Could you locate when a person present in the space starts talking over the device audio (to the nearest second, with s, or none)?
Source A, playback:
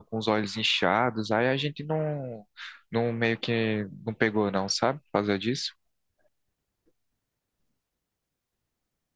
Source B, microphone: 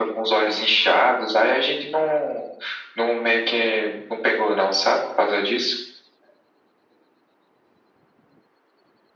none